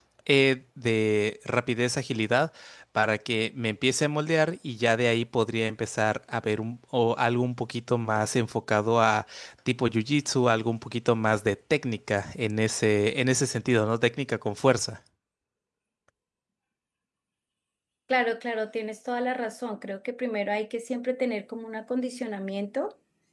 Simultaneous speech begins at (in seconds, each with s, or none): none